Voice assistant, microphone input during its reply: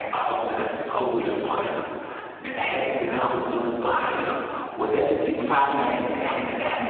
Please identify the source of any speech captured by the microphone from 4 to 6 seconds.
echo only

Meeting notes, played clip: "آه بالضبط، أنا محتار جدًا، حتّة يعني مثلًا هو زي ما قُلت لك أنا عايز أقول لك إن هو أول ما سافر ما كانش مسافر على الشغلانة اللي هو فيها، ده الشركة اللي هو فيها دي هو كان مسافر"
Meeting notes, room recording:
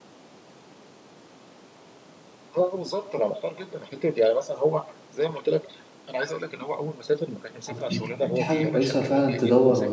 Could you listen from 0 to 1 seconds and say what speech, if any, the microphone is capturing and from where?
neither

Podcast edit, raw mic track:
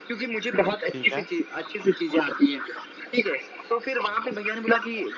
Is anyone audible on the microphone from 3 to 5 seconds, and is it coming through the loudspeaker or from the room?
echo only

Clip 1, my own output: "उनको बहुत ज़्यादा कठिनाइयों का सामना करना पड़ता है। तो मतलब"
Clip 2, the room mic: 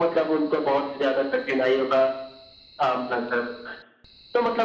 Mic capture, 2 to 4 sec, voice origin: echo only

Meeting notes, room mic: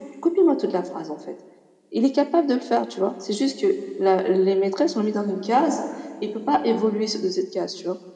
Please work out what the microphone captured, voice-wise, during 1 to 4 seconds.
echo only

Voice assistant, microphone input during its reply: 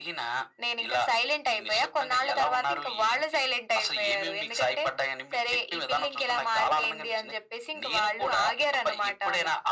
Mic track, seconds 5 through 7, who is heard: echo only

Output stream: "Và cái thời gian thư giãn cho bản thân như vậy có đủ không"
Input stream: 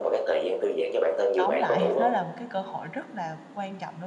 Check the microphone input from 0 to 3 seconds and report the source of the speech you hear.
both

